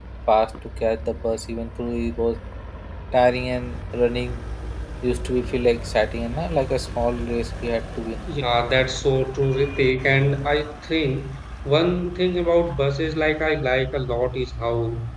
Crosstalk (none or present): none